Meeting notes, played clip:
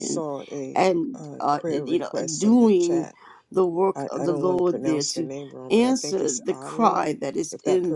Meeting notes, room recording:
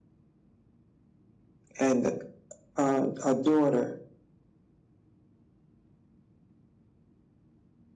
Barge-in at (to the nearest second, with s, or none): 2 s